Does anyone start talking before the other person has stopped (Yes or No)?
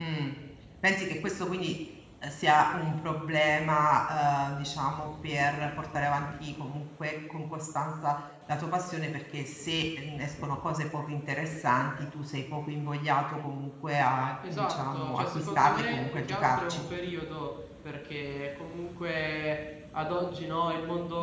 Yes